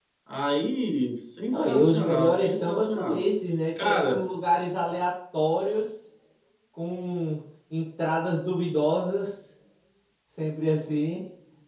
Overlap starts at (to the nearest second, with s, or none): 2 s